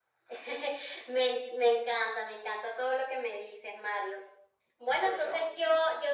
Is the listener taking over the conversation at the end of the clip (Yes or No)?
No